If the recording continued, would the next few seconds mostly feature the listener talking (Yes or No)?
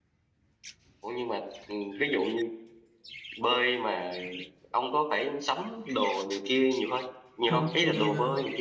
Yes